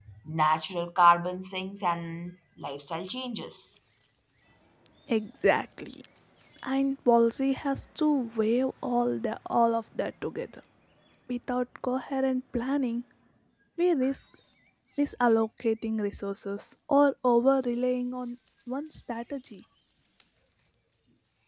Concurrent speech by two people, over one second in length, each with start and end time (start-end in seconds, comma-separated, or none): none